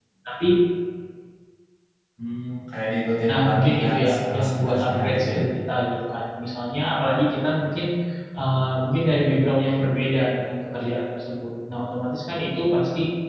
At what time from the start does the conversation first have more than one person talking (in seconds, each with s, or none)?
3.3 s